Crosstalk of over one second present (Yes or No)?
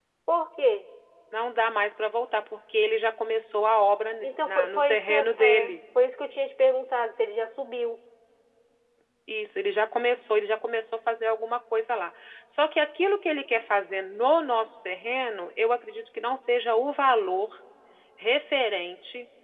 Yes